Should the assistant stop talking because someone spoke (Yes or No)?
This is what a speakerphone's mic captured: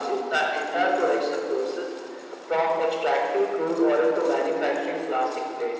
No